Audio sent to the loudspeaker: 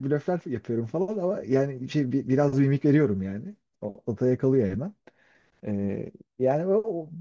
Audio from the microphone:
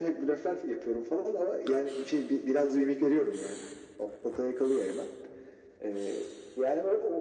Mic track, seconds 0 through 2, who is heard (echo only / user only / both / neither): echo only